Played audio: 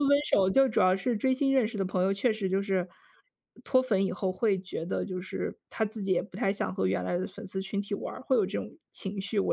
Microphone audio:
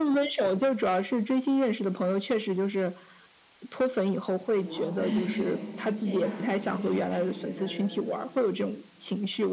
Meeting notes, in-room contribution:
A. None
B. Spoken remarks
B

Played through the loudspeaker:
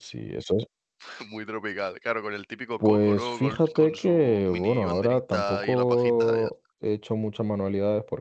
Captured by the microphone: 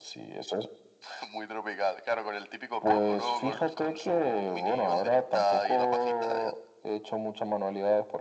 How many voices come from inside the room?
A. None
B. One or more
A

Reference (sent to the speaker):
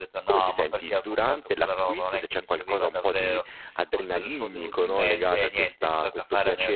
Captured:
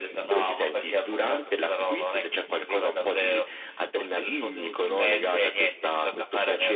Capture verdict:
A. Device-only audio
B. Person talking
A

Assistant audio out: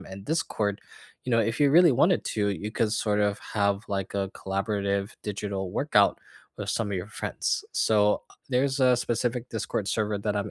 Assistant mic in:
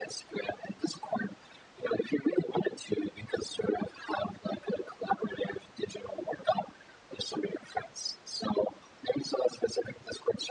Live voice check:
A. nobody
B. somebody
A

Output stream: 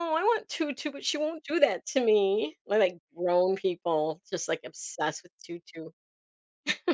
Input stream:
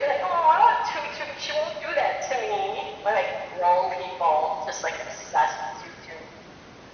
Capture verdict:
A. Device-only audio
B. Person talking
A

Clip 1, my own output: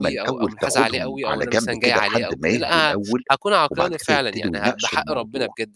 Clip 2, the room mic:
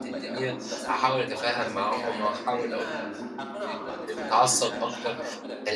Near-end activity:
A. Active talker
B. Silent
A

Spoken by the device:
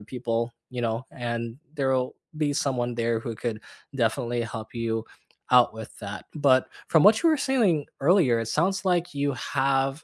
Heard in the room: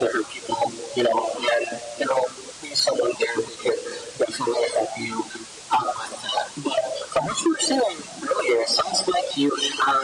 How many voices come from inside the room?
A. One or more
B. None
B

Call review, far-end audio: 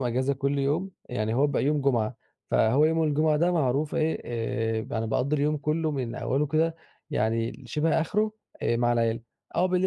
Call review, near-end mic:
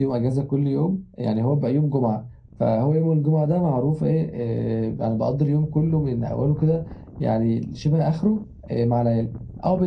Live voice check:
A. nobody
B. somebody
A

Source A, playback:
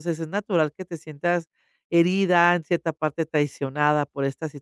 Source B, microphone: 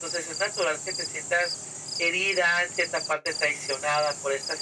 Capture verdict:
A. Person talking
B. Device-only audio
B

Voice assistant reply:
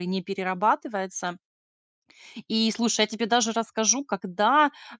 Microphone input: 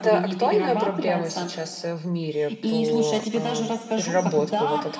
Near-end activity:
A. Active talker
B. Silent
A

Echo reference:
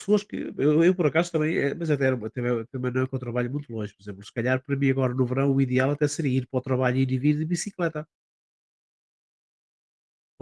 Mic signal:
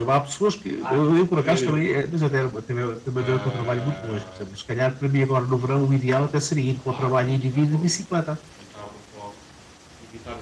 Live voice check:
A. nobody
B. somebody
B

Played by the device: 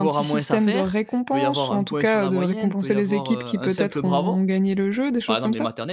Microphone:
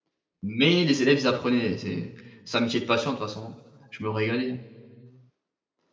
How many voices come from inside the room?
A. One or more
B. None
A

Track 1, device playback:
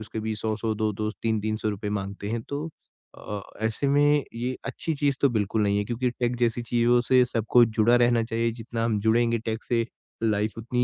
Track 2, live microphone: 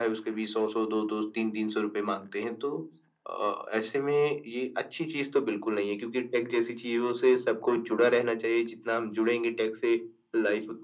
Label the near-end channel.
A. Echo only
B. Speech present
A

